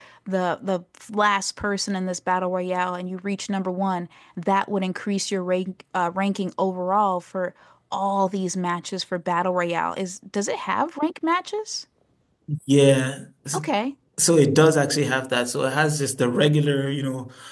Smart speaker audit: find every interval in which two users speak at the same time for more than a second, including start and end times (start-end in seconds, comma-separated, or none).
none